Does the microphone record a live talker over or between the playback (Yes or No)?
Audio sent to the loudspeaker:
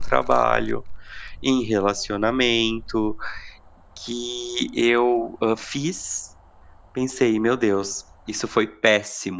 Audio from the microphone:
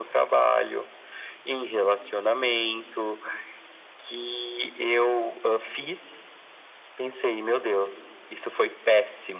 No